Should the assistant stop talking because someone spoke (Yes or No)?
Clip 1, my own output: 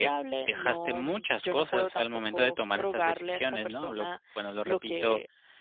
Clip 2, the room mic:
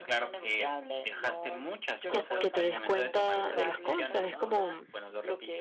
Yes